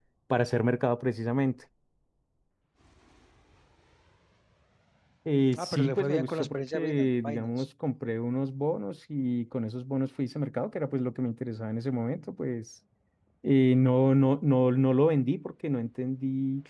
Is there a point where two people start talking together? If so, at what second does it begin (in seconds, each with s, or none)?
5.6 s